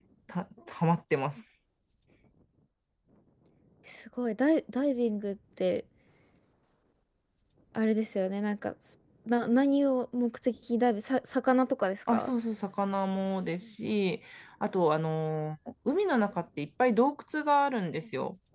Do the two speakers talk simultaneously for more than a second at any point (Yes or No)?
No